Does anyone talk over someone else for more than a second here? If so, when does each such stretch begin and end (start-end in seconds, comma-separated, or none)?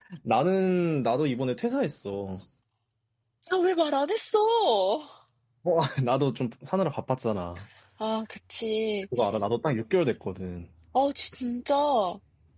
none